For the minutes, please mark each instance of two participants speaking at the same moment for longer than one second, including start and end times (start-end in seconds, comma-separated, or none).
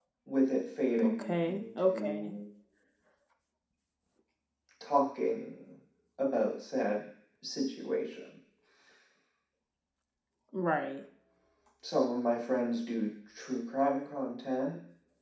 1.0-2.4